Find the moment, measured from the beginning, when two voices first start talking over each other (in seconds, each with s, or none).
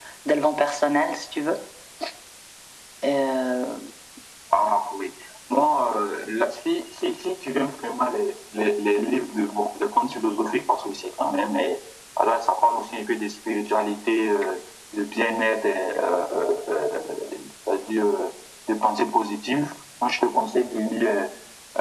none